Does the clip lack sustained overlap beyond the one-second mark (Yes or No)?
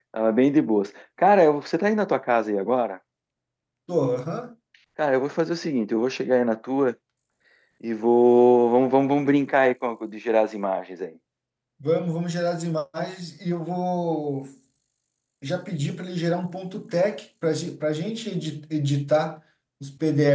Yes